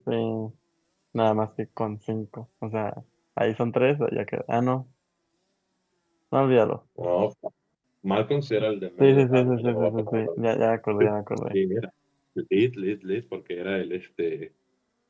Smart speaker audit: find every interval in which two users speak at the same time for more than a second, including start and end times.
9.0-10.4

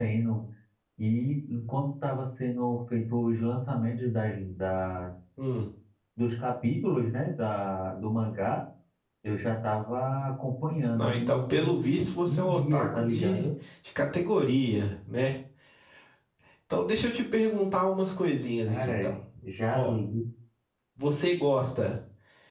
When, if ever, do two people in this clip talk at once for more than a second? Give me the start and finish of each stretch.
10.9-13.4

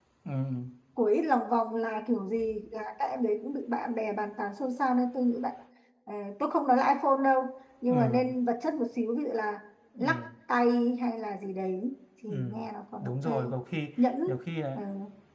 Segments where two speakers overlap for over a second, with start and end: none

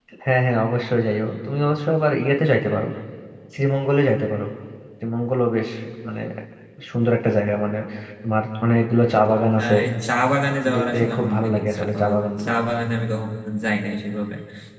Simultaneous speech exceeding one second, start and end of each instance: 10.6-12.5

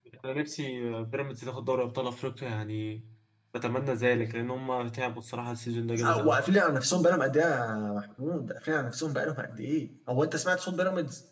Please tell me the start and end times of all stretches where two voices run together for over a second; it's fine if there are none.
none

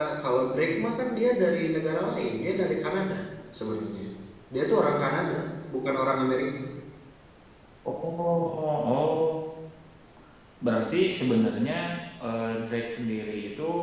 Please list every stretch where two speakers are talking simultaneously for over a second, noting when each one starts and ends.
none

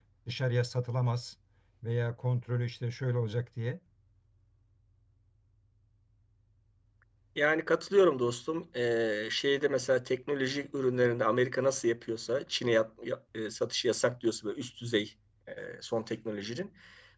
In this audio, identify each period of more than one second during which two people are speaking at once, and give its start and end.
none

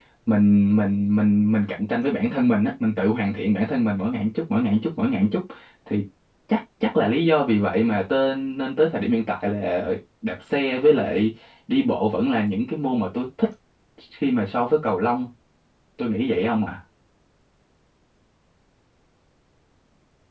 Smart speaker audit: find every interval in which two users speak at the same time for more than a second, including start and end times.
none

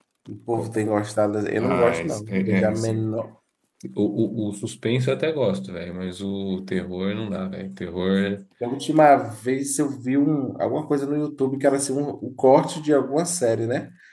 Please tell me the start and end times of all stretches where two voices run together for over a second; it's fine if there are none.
1.6-3.1

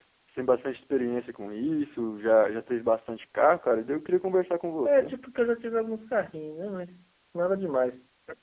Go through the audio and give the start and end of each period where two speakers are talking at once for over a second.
none

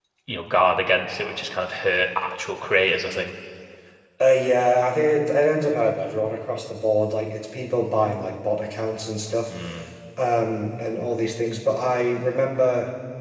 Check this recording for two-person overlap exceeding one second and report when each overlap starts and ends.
none

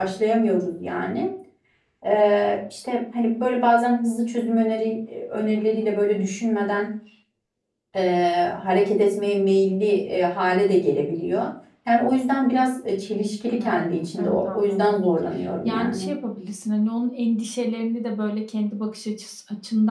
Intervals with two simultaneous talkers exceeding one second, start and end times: 13.6-15.0

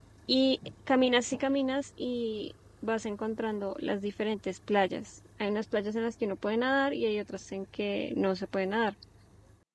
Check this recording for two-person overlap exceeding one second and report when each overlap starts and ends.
none

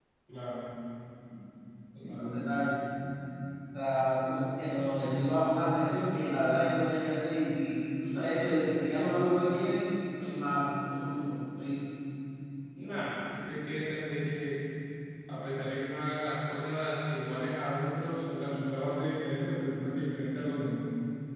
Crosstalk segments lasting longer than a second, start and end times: none

